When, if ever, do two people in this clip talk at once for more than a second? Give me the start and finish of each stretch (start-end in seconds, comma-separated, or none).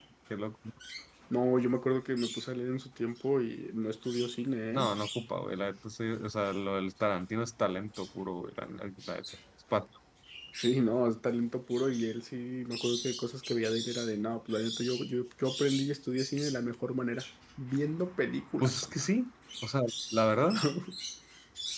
none